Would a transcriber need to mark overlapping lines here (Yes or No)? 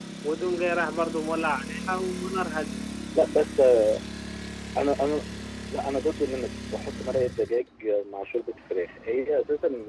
No